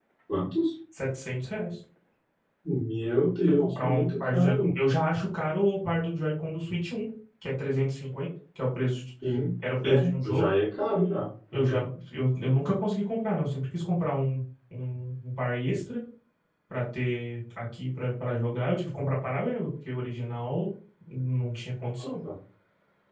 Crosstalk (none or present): present